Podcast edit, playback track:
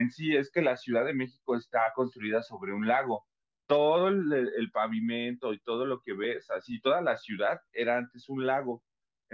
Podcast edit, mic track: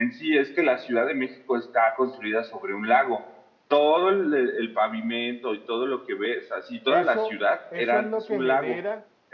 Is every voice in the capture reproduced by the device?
No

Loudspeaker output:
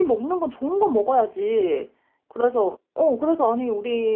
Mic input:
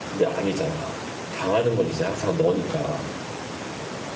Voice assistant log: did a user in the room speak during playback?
Yes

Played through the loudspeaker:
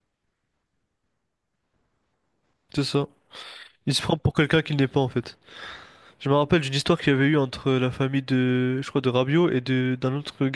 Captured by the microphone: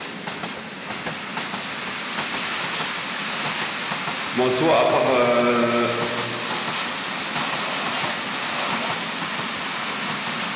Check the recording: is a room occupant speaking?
Yes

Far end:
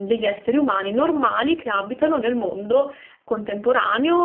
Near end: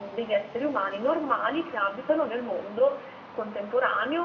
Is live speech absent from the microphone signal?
Yes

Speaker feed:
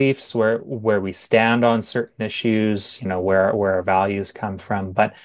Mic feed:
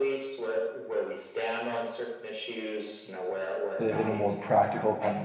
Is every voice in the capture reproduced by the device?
No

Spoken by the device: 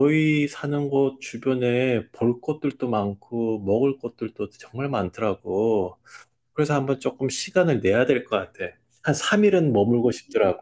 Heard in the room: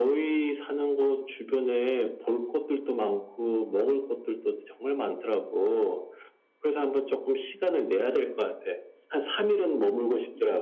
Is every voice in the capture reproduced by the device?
Yes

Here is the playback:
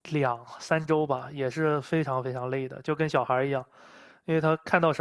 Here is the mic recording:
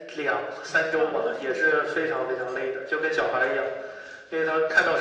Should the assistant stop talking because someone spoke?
Yes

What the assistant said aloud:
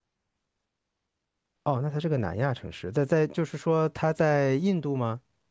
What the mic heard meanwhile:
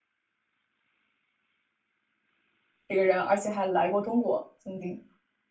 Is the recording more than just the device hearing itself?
Yes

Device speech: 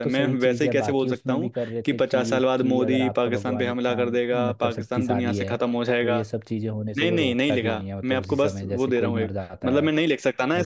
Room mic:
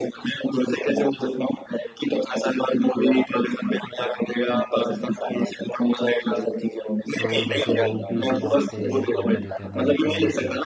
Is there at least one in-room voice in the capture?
Yes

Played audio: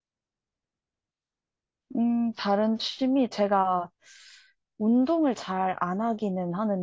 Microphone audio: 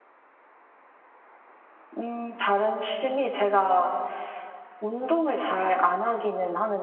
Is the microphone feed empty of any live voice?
Yes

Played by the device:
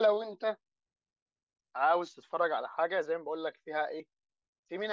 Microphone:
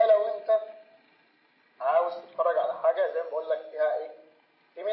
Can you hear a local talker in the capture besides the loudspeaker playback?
No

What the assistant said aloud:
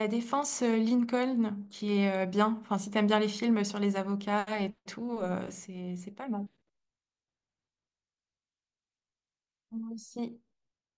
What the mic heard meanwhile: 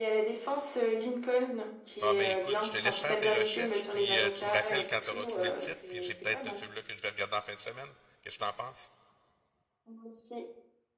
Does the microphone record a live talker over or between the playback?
Yes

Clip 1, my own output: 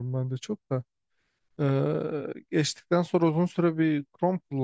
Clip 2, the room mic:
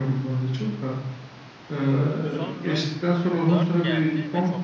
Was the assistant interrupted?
Yes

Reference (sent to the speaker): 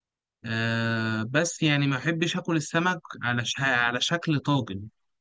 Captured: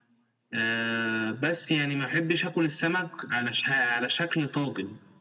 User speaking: No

